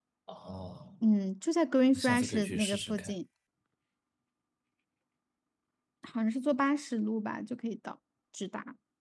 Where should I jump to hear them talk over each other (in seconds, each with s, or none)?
1.9 s